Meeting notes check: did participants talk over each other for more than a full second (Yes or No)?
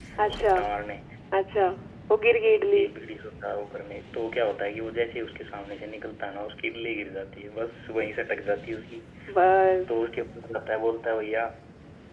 No